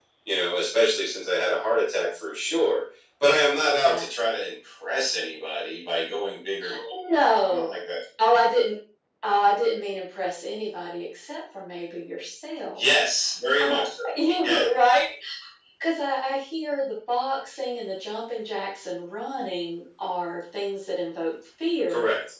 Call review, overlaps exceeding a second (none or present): none